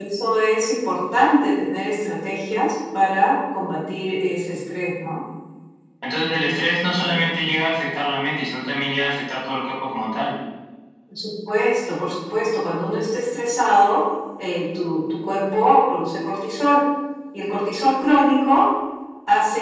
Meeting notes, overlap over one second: none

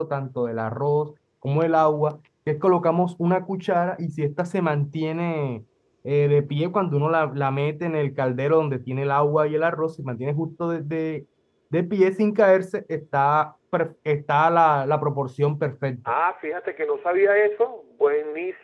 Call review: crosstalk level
none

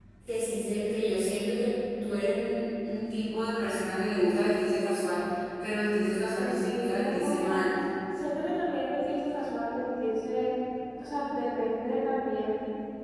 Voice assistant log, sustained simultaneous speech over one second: present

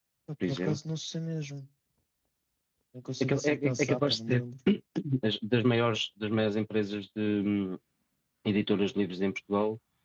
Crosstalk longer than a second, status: present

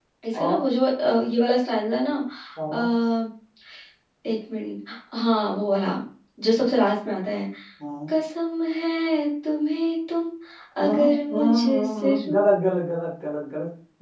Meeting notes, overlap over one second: present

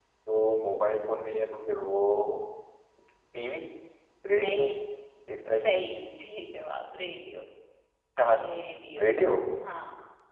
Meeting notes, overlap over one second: none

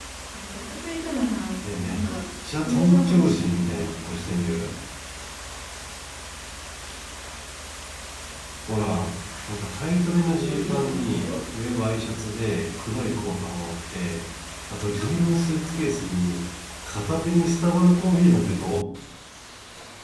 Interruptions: present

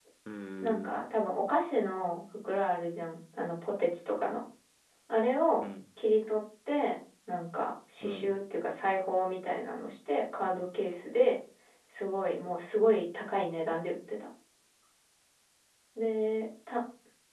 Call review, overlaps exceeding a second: none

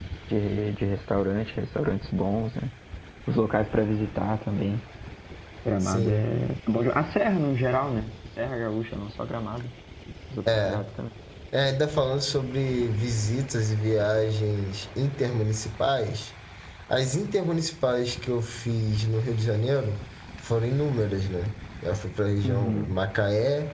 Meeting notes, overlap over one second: none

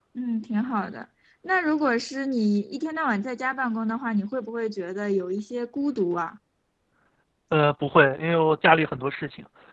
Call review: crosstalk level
none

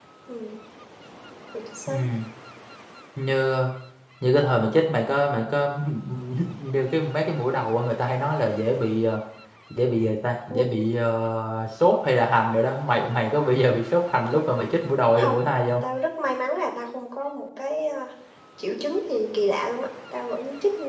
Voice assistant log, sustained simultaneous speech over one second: none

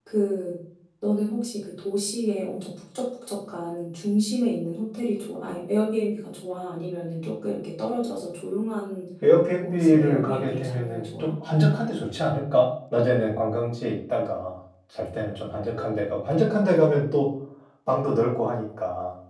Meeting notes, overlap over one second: present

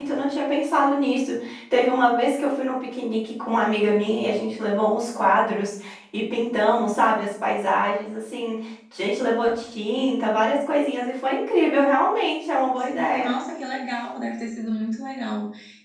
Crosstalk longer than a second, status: none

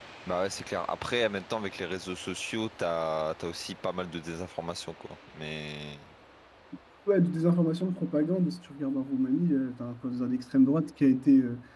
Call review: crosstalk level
none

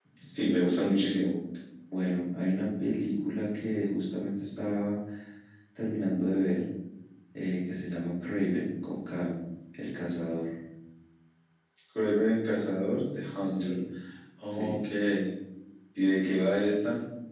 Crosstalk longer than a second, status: none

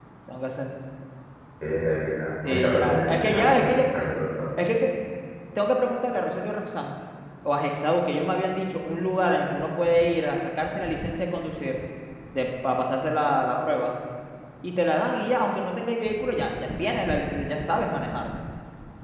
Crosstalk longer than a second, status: present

